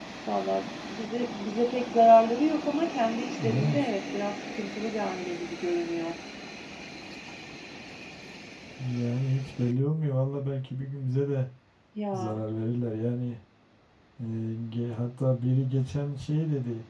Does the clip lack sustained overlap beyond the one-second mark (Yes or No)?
Yes